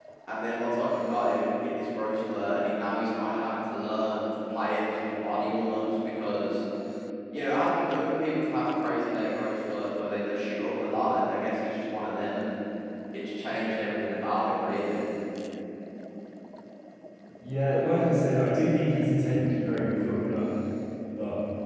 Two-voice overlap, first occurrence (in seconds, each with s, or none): none